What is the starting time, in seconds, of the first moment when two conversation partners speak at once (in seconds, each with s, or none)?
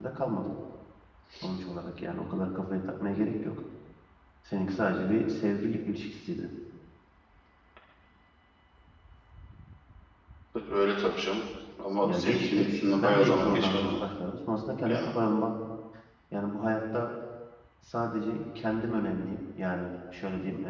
12.0 s